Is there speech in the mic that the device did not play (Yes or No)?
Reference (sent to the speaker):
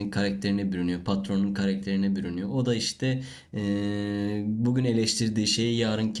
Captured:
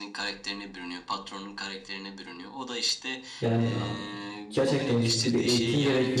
Yes